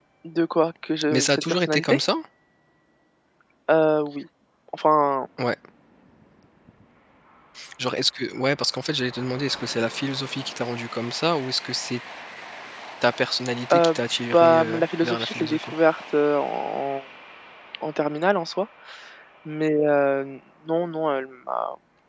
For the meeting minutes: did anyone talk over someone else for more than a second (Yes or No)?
Yes